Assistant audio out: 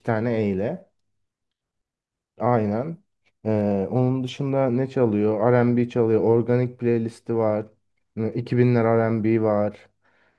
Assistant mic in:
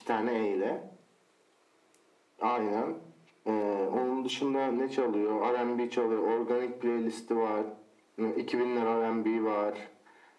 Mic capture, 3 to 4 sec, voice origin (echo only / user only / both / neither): echo only